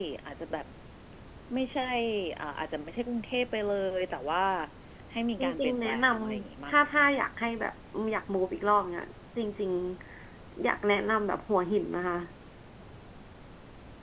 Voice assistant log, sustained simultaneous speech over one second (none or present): present